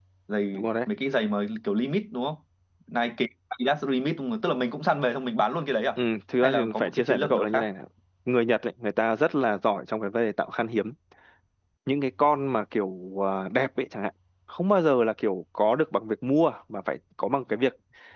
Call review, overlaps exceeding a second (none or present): present